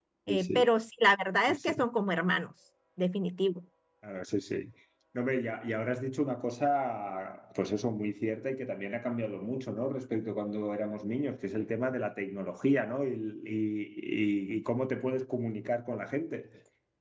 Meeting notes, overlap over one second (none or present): none